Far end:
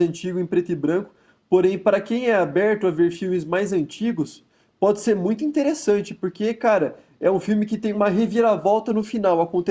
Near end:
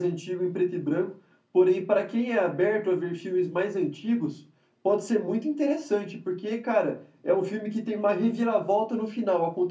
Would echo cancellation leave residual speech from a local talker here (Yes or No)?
No